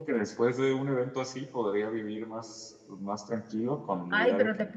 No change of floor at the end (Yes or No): No